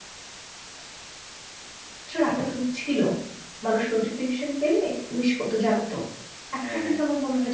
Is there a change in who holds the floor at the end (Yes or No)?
No